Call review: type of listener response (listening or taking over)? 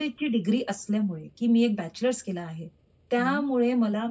listening